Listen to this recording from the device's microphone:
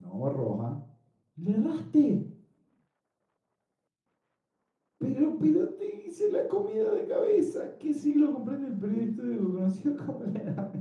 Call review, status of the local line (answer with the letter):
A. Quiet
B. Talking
B